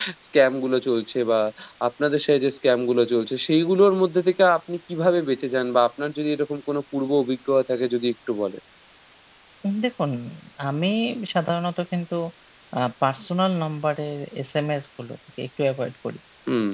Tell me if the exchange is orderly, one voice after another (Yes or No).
Yes